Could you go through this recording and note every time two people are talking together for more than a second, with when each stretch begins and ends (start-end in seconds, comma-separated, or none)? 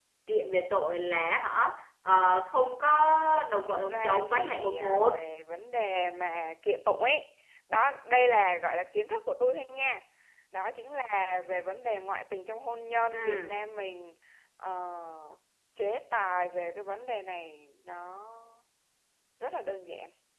3.7-5.2